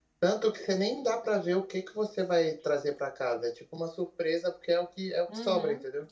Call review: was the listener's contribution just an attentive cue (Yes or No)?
No